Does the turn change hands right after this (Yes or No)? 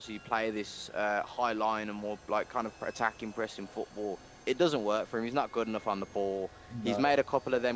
No